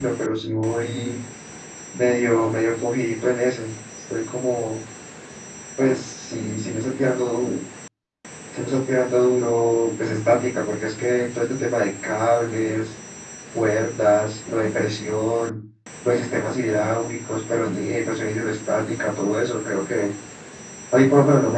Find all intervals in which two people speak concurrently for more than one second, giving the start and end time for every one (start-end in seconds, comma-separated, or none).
none